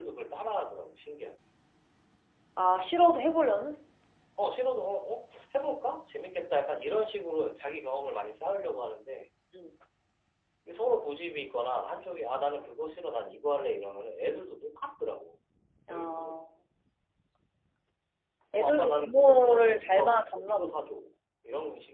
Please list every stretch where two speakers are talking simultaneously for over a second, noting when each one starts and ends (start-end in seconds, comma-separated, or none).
18.6-20.8